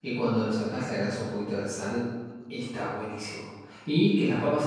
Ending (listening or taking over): listening